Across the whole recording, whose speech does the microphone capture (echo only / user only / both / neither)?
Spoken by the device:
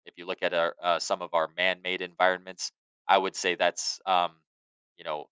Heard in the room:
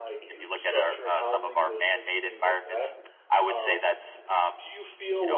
both